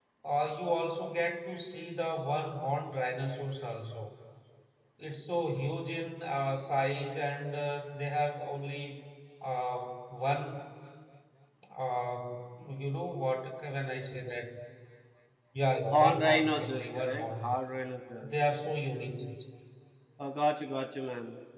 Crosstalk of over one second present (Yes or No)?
Yes